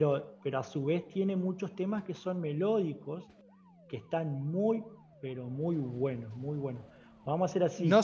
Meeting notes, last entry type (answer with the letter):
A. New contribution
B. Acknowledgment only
A